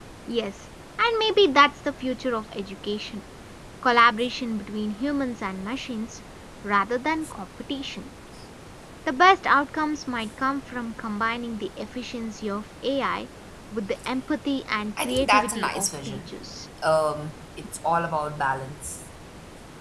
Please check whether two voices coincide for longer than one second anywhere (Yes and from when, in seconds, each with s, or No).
Yes, from 15.0 s